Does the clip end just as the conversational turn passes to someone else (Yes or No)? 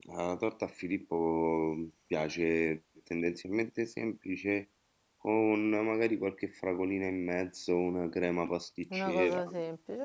Yes